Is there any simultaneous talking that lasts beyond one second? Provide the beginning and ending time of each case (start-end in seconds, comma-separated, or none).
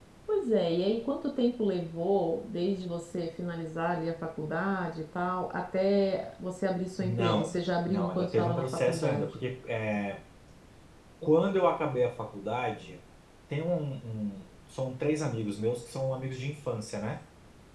7.0-9.2